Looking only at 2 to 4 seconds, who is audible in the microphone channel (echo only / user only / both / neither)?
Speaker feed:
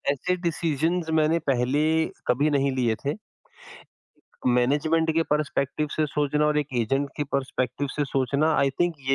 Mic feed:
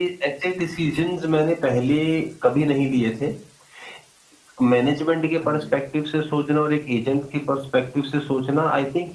echo only